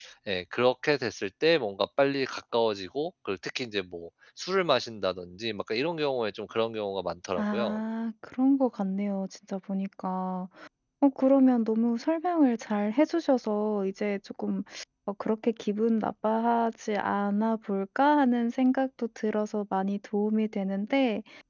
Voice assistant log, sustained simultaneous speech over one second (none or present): none